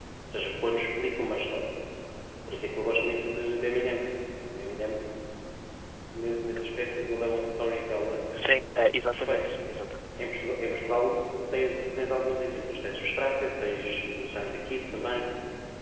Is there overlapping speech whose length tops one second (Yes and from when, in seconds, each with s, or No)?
No